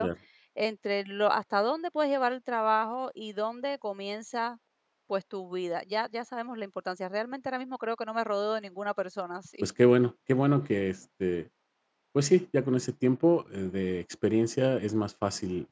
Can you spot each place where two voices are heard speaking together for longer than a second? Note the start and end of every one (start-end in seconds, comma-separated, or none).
none